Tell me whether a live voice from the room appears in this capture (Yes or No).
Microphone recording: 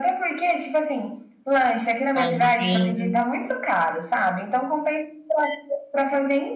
Yes